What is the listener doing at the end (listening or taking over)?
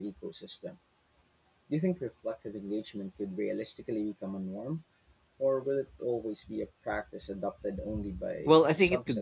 taking over